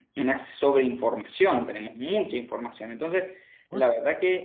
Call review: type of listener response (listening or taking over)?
listening